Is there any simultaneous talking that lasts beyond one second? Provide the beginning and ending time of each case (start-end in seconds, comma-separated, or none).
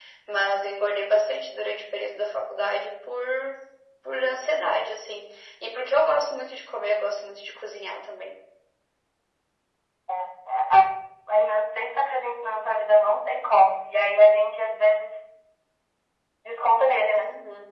none